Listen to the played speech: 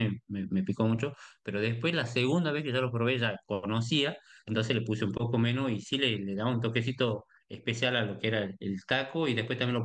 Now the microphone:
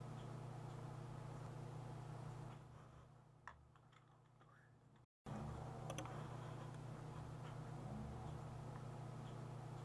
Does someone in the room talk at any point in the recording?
No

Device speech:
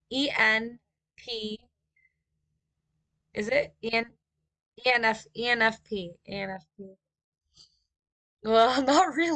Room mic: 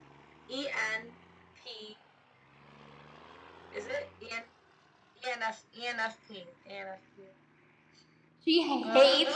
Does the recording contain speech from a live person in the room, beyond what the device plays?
Yes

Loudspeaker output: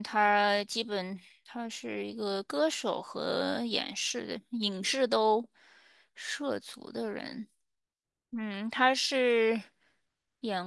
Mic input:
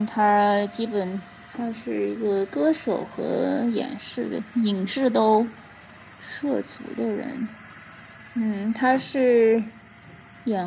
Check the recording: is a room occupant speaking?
No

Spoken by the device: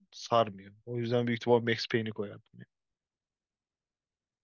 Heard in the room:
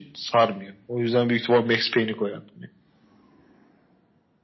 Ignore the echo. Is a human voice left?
No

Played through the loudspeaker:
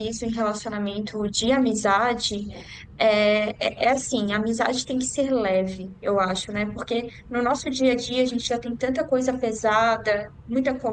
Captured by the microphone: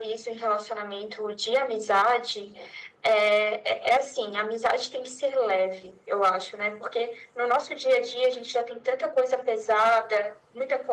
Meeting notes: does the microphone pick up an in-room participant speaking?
No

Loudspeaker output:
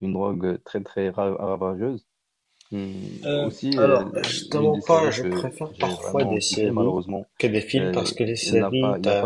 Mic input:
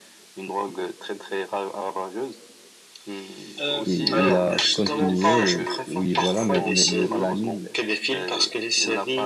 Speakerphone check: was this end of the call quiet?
No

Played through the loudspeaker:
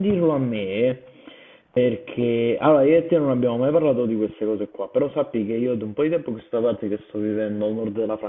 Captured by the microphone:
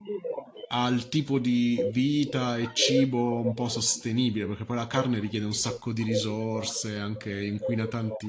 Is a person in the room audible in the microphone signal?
Yes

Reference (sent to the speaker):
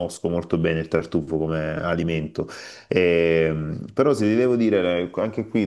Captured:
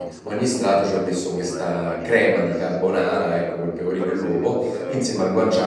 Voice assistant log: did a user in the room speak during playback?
Yes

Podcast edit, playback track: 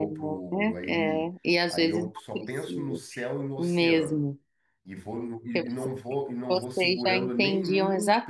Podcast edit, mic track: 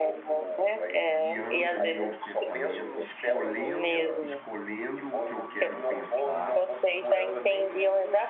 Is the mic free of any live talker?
No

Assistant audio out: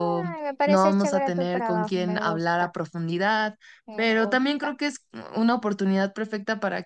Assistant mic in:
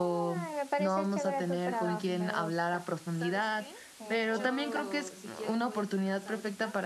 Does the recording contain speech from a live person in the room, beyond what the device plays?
Yes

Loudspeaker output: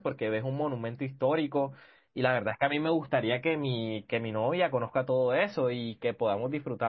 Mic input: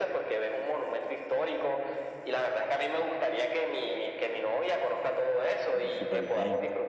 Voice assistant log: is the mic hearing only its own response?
No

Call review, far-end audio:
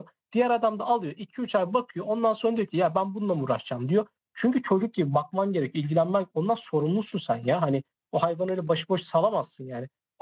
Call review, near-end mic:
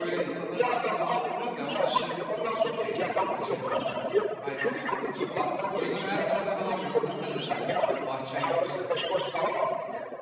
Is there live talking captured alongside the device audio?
Yes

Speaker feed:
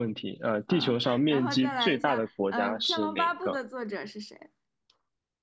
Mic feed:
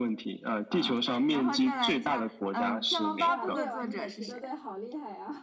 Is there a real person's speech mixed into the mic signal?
Yes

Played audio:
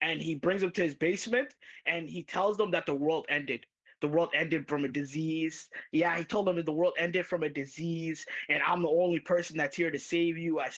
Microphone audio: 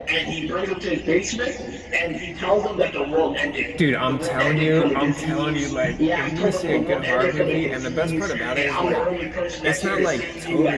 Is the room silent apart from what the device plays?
No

